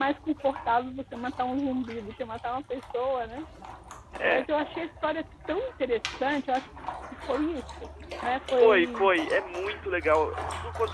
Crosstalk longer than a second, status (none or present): none